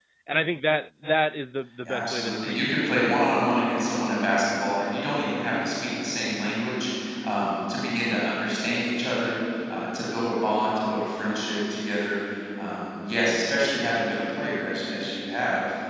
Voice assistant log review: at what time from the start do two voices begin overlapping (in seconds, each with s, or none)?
1.8 s